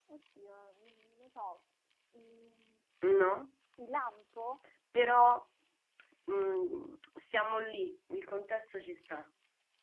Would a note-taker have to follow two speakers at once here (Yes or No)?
No